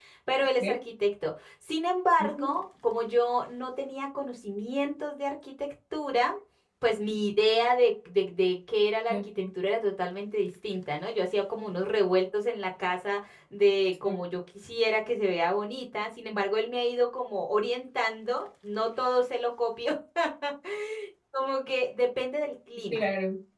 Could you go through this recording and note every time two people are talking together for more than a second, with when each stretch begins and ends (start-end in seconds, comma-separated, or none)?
none